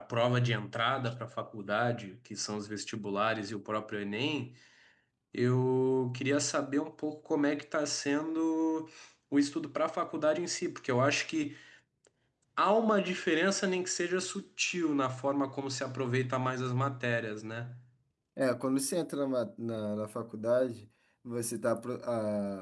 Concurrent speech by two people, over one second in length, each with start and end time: none

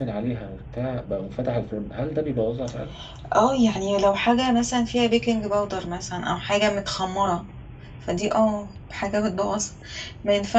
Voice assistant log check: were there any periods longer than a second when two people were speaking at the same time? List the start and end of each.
none

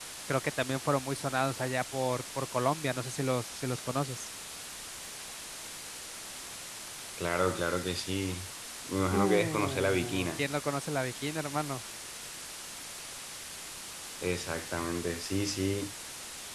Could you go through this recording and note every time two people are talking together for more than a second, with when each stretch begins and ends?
9.1-10.4

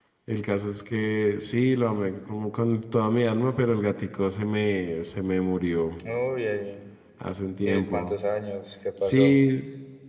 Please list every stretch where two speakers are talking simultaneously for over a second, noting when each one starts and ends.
none

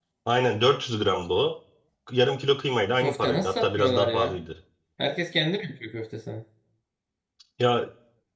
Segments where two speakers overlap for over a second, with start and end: 3.0-4.4

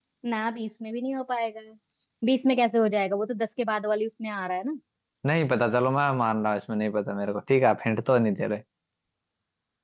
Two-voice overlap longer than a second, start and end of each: none

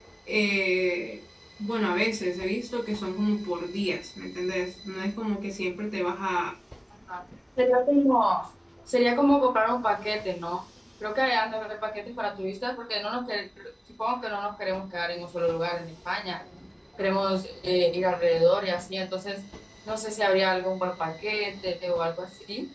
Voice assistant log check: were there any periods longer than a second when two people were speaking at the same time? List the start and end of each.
none

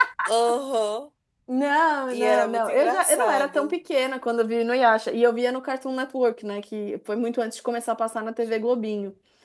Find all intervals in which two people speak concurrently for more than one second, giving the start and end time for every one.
2.1-3.7

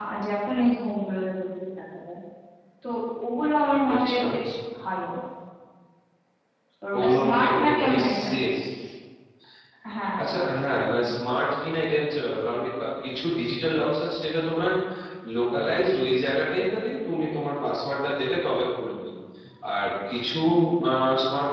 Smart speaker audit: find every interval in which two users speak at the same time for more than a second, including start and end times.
7.0-8.3

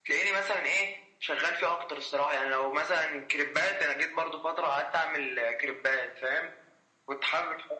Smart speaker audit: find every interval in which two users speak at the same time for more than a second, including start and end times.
none

